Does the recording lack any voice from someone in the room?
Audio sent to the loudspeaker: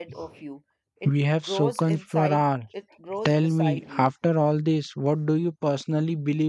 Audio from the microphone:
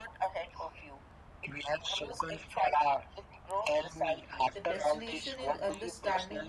No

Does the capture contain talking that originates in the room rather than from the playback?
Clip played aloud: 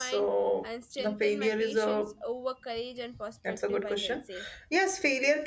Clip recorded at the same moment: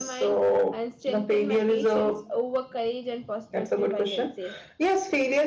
No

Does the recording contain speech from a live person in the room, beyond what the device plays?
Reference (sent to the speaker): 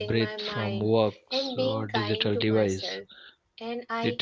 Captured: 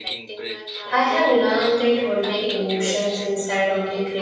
Yes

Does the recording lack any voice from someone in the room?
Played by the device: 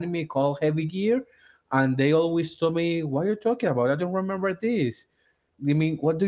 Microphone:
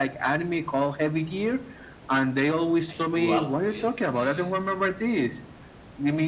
No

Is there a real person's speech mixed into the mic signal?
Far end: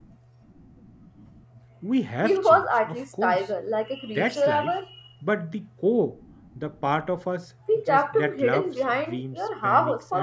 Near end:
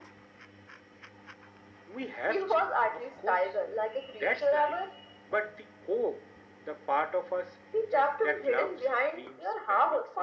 No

